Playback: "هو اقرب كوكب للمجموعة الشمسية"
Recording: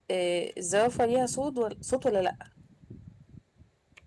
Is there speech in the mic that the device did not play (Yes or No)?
Yes